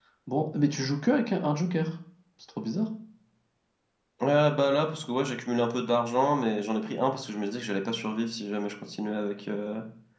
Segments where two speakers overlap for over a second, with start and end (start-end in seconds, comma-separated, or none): none